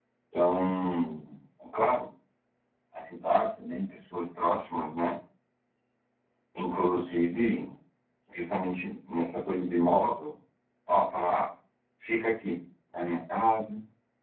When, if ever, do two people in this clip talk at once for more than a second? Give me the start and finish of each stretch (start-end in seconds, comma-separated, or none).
none